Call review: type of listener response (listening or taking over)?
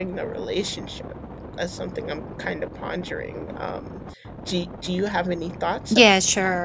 taking over